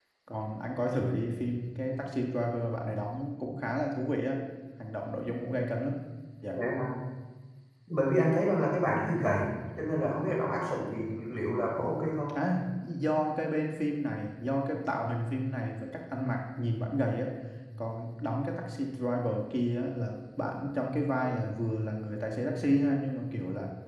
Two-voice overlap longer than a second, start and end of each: none

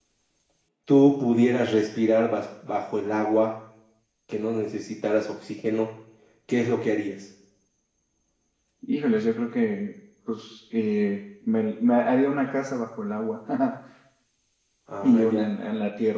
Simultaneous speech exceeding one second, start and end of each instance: none

